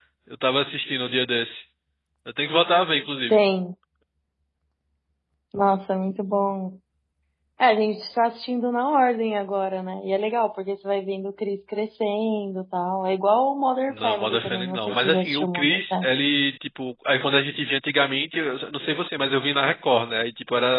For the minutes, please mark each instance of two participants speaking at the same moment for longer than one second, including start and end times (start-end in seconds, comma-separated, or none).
13.9-16.1